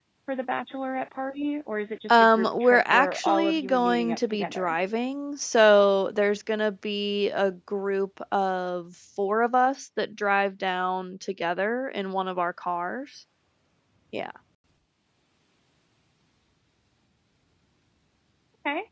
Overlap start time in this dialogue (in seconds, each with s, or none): 2.1 s